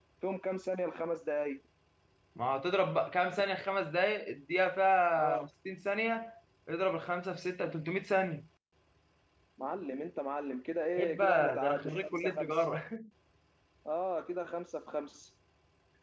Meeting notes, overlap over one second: present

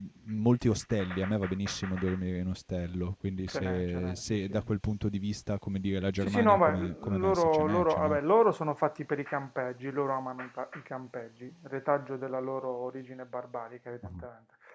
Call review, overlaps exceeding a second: present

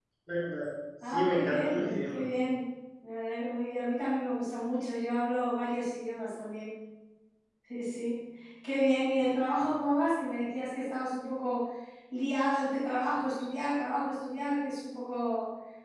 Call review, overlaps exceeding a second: present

